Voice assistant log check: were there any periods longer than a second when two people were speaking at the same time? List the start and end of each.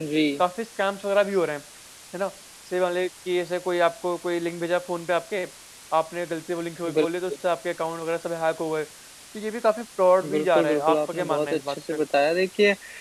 10.3-12.0

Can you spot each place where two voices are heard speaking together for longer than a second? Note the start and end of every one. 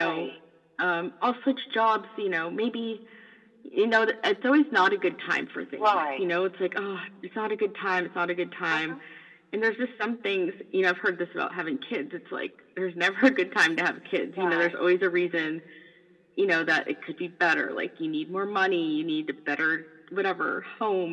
none

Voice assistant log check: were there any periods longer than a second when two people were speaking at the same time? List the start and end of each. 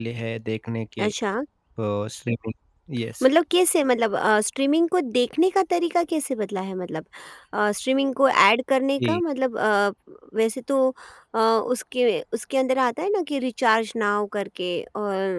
none

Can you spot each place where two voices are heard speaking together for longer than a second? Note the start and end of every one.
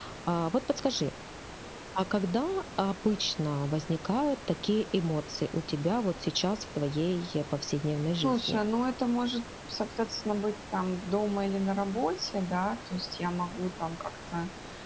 none

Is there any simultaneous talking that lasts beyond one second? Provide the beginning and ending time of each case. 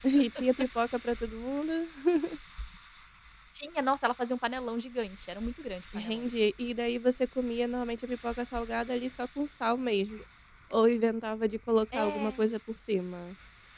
none

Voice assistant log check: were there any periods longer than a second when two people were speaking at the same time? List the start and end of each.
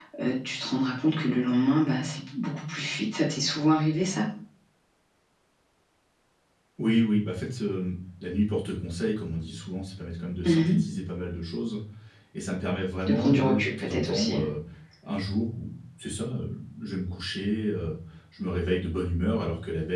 13.1-14.4

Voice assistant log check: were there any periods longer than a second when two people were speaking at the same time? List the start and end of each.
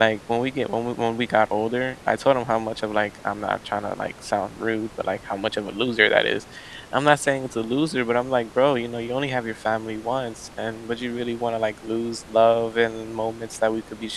none

